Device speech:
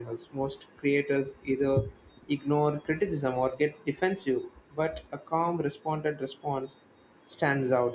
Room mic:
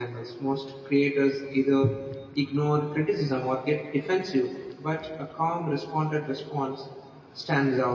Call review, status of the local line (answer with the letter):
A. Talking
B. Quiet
B